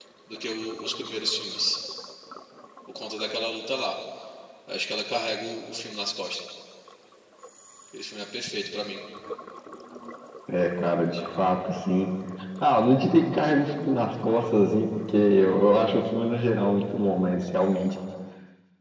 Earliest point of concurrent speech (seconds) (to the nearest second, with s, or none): none